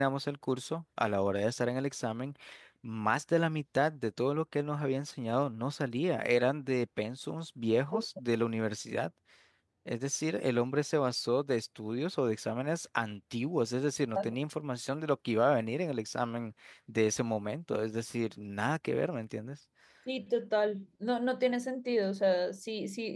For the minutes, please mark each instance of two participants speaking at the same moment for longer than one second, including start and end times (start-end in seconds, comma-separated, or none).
none